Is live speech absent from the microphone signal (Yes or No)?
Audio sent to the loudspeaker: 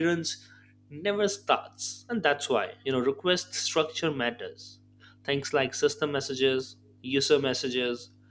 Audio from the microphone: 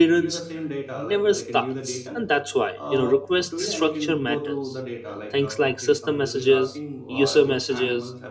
No